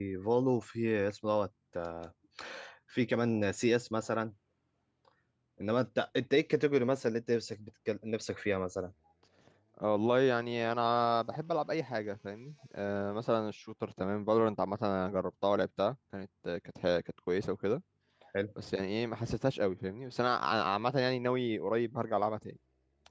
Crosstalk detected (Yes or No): No